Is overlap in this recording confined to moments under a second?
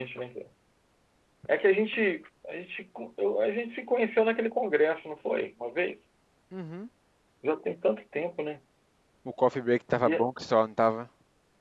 Yes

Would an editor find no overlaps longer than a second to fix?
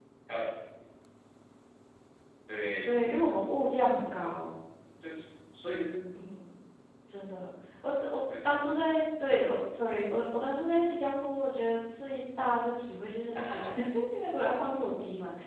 Yes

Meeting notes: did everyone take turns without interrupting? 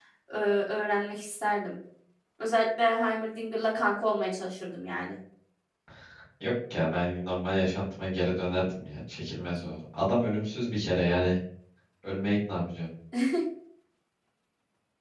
Yes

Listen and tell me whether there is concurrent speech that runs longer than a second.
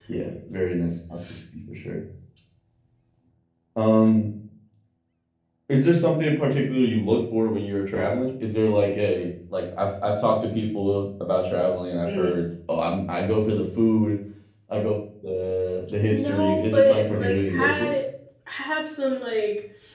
Yes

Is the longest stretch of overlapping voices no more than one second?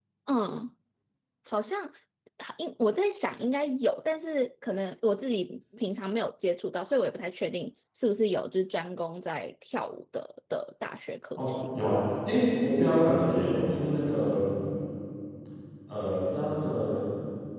Yes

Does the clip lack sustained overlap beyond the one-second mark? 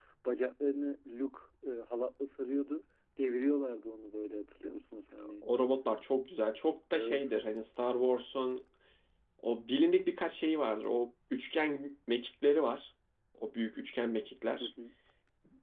Yes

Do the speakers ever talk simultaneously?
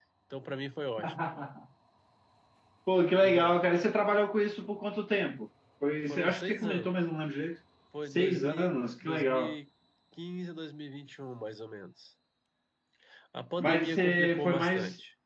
Yes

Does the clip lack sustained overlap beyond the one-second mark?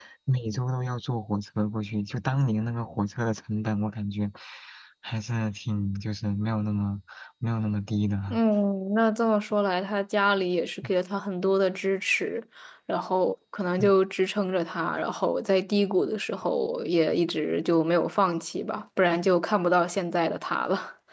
Yes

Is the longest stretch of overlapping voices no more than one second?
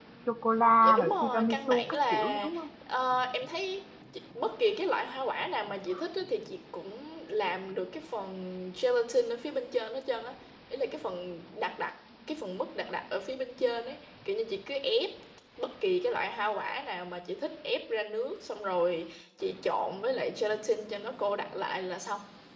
No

